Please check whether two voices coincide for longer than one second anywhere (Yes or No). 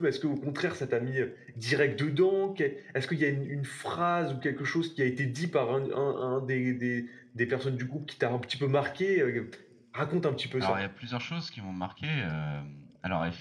No